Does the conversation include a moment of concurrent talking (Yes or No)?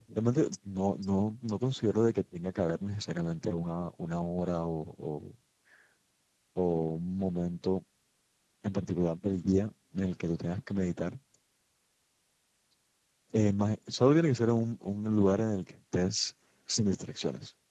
No